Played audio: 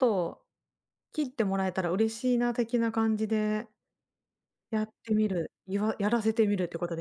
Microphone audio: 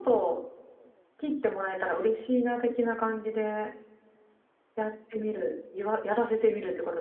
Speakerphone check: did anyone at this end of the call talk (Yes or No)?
No